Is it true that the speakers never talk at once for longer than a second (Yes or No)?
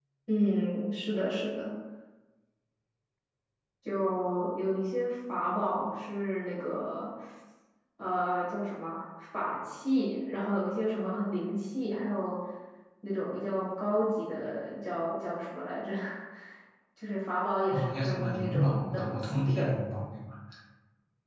No